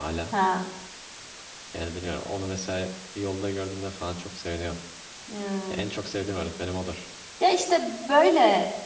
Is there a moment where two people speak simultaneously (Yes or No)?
No